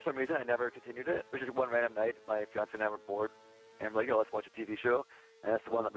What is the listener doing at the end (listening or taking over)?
listening